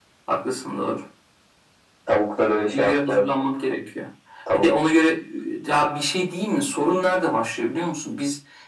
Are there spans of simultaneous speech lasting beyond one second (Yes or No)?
No